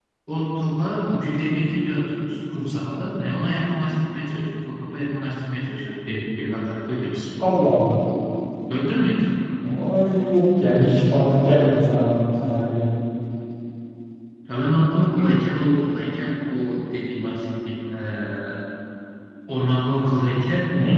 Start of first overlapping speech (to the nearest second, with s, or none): none